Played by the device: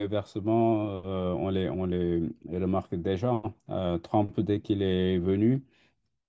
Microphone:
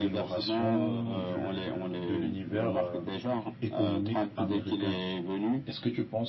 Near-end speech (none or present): present